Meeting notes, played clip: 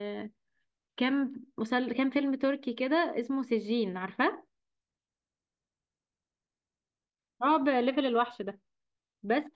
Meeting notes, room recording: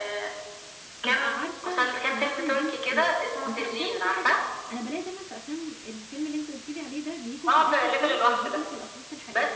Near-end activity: present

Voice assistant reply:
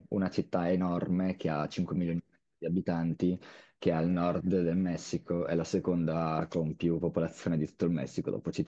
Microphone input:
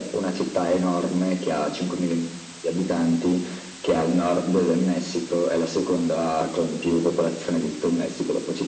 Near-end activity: none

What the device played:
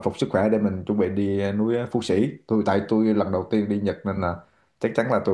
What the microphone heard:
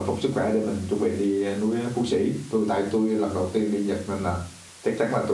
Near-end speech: none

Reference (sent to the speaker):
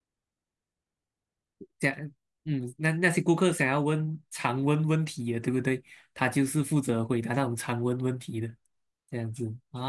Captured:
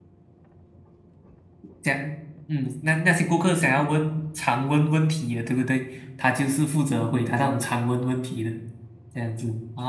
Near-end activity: none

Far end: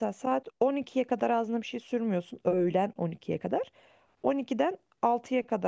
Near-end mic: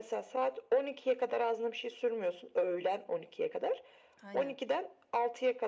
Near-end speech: present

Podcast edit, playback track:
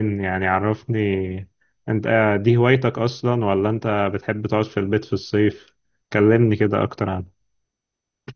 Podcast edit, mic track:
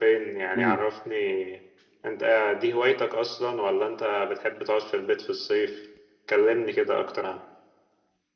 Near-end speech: present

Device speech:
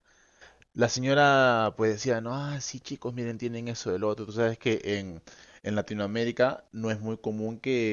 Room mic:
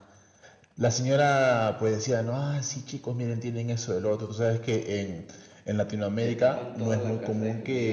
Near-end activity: present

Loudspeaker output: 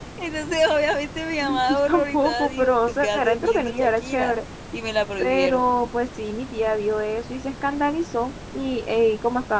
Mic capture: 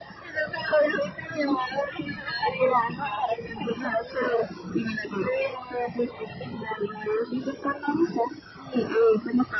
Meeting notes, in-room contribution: none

